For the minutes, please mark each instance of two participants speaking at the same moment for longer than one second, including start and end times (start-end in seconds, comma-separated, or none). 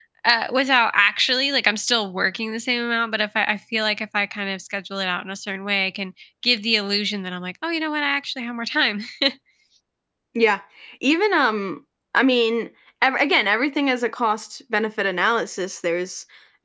none